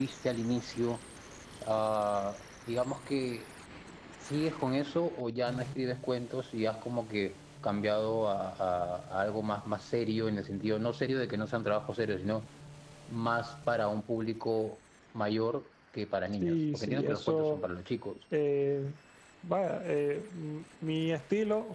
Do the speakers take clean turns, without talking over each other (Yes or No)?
No